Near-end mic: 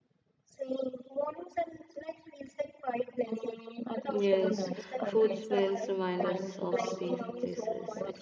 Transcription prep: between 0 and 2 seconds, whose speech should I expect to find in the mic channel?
echo only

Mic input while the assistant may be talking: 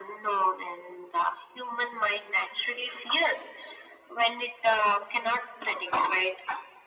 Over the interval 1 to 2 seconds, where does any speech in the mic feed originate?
echo only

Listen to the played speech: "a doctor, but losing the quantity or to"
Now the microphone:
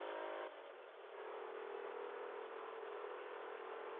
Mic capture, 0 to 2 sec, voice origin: neither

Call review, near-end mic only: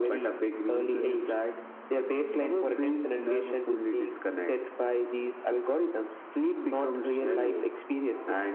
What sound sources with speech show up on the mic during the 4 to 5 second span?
echo only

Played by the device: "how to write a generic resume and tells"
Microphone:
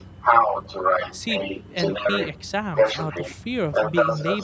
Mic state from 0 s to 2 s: both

